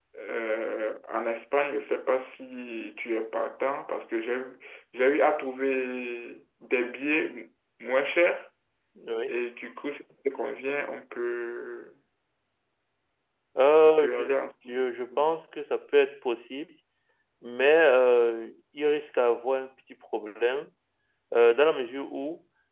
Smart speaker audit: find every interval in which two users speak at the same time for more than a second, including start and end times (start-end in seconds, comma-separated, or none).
none